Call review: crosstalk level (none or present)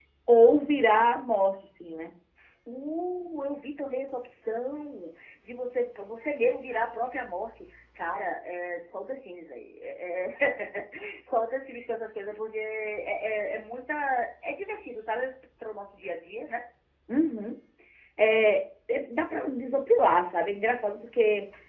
none